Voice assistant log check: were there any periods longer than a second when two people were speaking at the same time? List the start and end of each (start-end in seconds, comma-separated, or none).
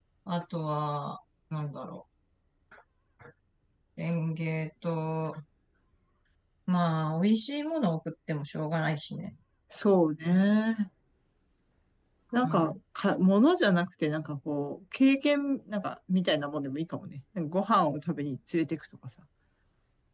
none